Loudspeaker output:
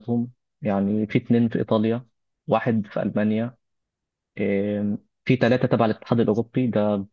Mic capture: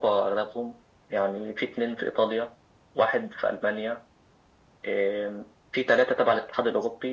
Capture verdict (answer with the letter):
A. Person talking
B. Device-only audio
B